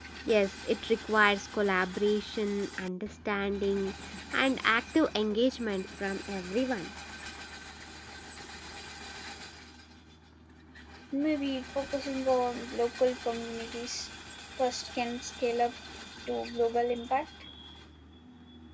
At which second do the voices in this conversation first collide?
none

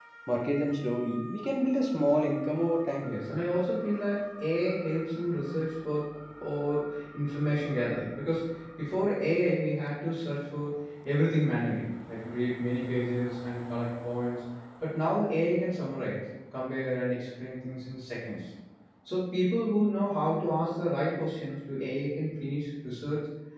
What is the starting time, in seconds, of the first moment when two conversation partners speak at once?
none

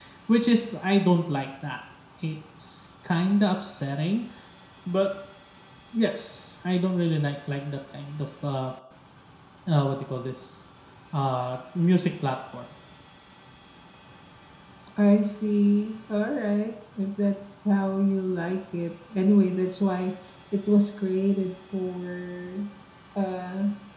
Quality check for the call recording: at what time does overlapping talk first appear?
none

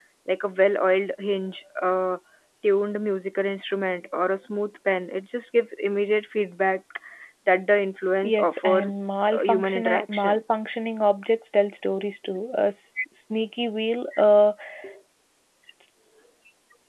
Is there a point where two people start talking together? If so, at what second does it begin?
8.2 s

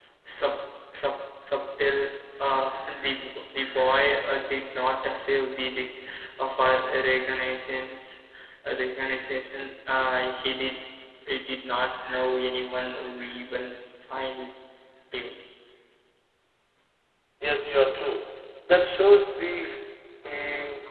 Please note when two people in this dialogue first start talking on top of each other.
none

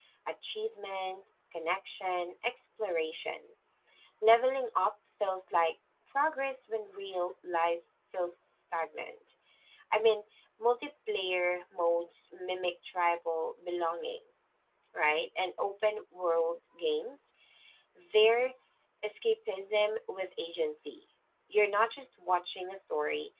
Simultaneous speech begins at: none

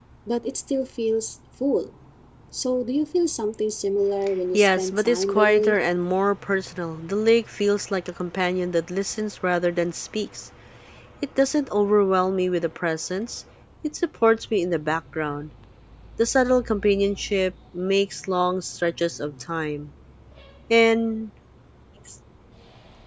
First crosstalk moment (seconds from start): 4.5 s

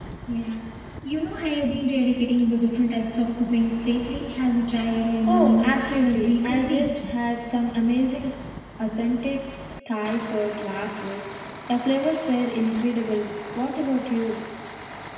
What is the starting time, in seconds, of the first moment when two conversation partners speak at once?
5.3 s

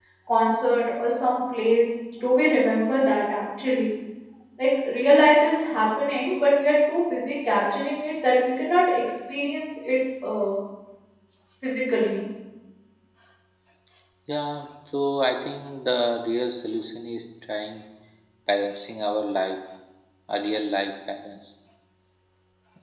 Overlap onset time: none

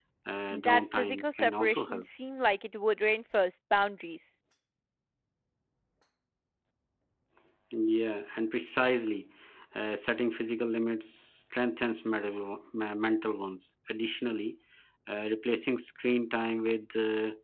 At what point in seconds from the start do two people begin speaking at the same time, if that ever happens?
0.5 s

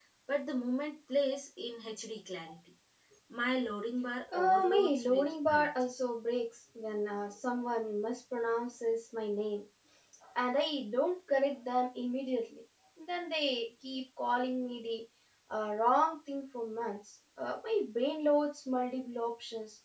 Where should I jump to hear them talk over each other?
4.3 s

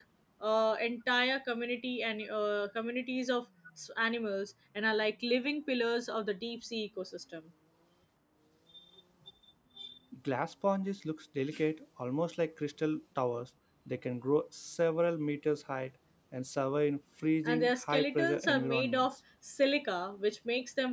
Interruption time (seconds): 17.4 s

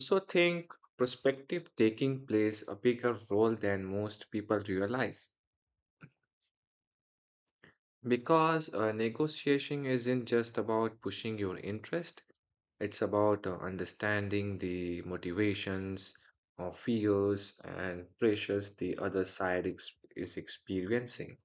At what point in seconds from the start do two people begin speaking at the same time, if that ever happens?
none

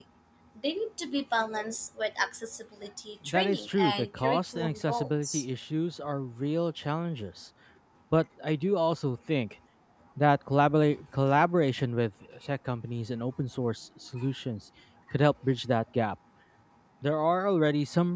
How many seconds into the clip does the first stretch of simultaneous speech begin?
3.2 s

